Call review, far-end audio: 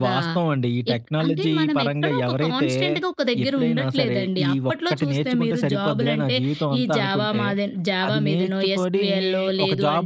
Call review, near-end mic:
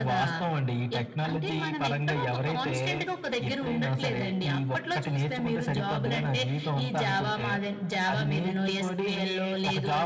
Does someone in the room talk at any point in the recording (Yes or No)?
No